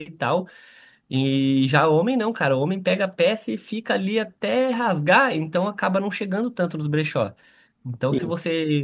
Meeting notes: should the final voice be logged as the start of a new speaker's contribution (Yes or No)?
No